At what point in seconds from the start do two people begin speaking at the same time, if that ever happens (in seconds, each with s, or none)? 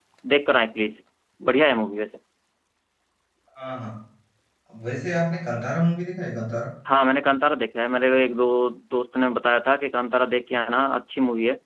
none